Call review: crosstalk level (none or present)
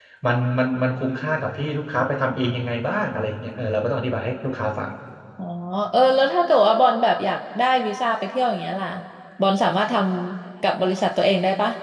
none